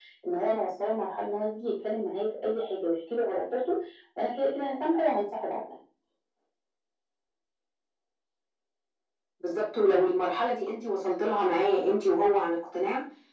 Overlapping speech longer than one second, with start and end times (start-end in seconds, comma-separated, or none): none